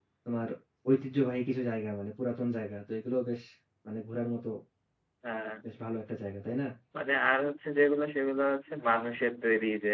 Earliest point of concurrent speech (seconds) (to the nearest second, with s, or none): none